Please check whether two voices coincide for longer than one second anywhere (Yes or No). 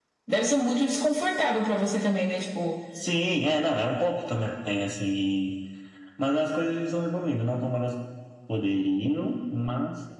No